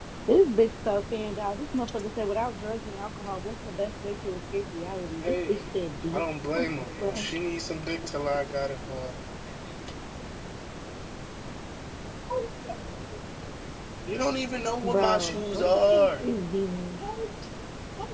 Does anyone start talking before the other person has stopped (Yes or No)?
Yes